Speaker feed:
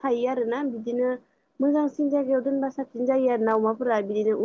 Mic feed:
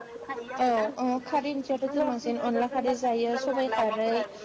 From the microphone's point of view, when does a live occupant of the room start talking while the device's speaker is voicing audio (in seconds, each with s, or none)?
0.6 s